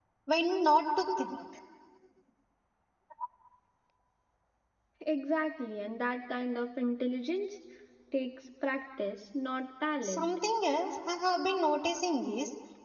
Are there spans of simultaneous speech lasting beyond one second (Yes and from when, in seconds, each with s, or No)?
No